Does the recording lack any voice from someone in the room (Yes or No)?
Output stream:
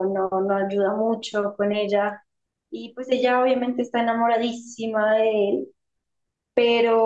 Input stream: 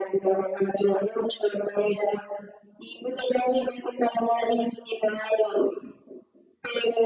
Yes